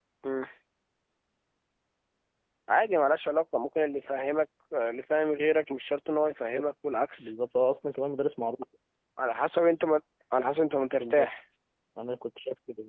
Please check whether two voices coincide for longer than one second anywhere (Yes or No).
No